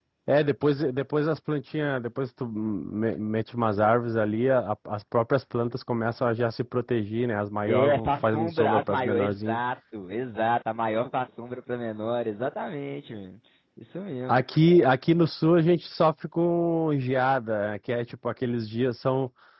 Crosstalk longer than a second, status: present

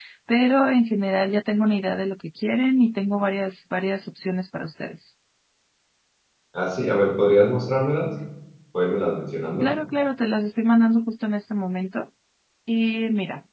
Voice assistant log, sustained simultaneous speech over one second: none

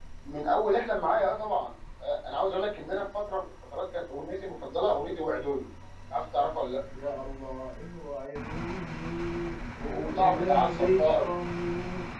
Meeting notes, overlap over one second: present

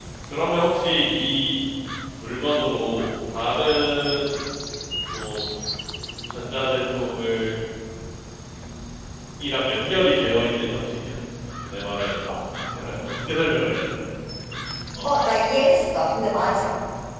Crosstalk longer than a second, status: none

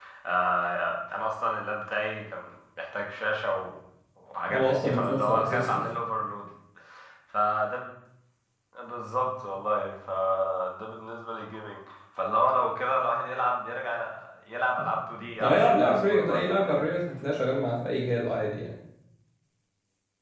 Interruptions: present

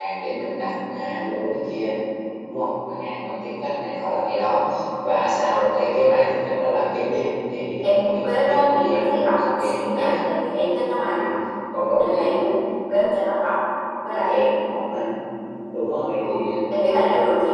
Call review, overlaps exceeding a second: present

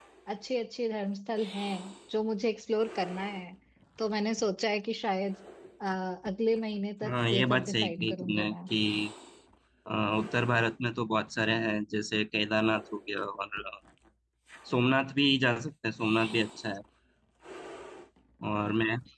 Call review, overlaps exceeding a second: present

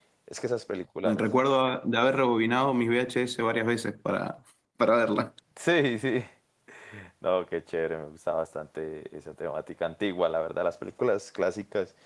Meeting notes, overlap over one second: none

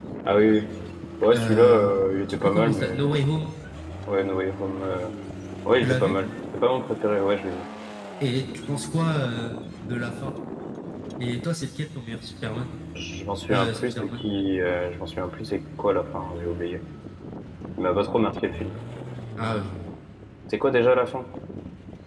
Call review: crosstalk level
present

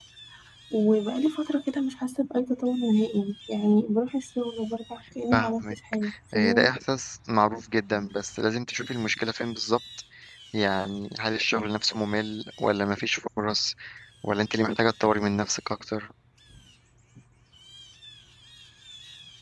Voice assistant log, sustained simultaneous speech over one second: present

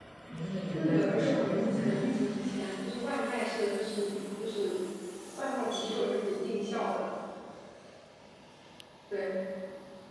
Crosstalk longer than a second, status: present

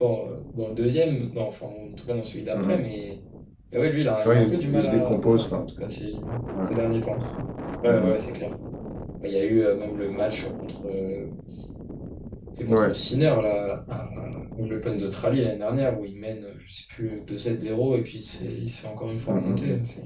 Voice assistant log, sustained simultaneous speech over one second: present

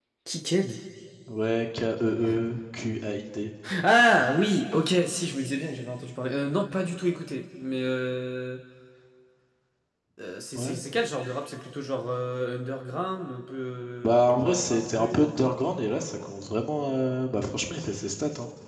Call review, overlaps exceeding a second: present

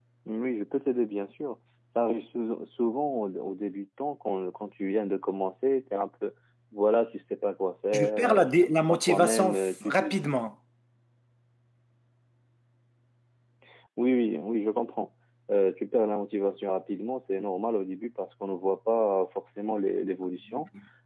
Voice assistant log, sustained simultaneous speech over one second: present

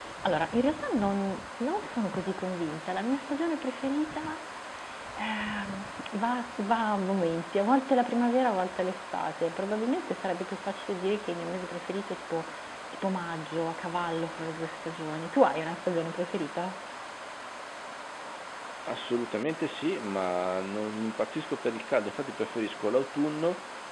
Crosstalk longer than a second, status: none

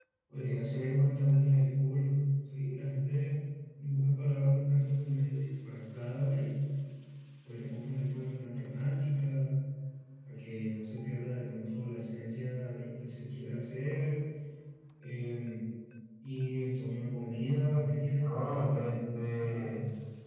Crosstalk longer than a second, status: present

